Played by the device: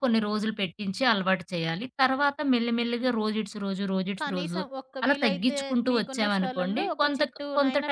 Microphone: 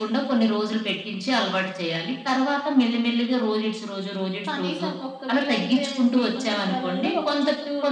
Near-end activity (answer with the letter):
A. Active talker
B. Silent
B